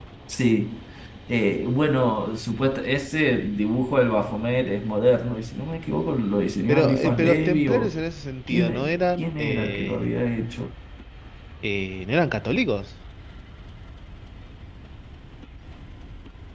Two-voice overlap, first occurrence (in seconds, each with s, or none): 6.7 s